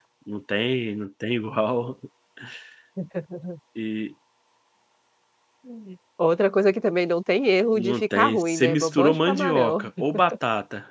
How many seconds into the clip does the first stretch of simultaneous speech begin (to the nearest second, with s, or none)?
8 s